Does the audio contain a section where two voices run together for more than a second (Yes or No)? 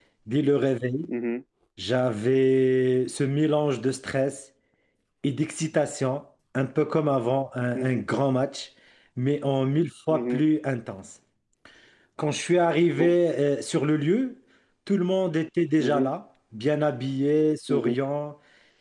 No